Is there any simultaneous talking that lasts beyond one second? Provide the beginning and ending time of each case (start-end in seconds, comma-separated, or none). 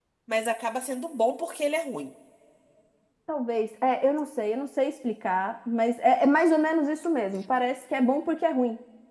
none